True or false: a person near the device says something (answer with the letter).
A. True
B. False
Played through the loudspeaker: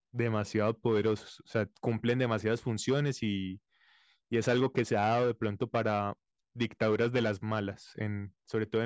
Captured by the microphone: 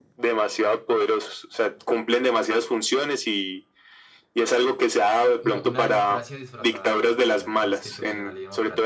A